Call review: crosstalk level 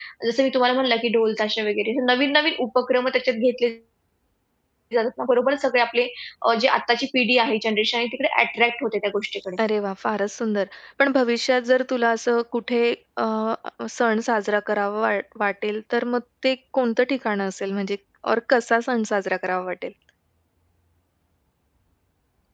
none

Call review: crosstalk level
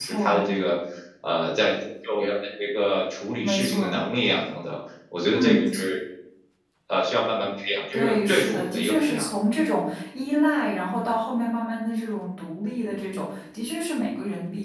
present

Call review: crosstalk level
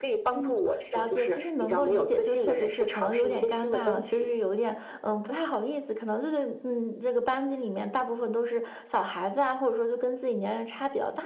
present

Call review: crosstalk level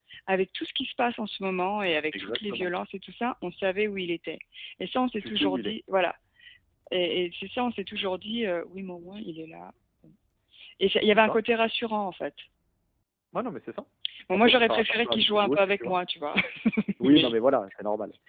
present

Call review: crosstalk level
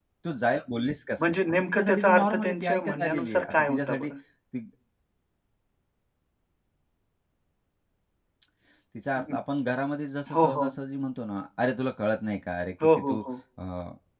present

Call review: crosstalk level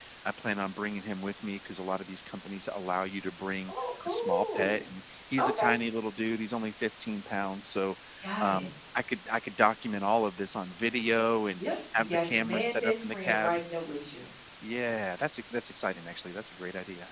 present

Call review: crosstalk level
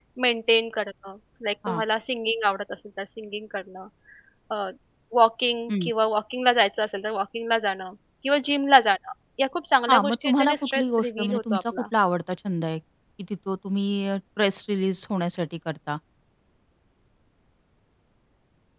present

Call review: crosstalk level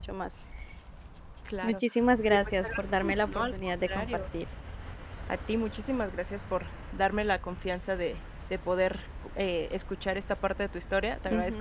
present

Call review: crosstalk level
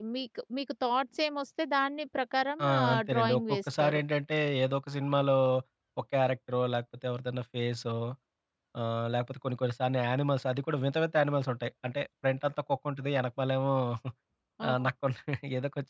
present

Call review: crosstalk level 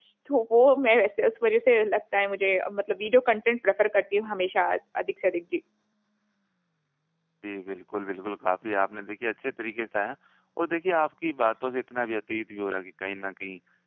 none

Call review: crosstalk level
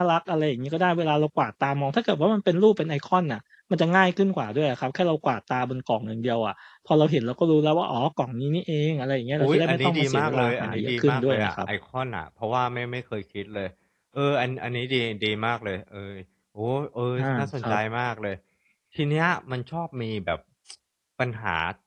present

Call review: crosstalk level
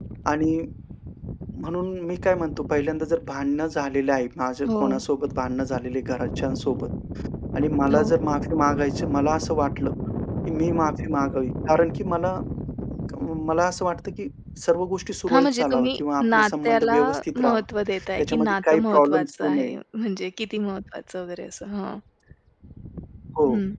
present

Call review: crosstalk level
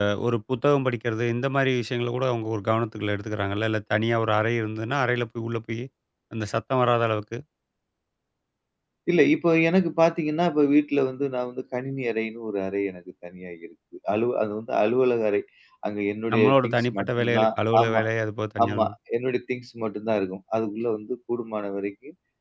present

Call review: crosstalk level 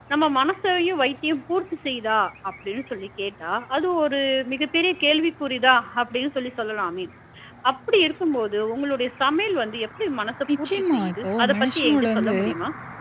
present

